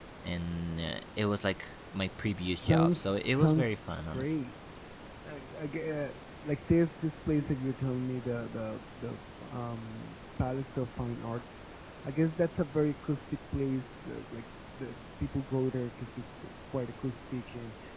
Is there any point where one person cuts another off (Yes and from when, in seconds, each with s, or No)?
Yes, from 2.6 s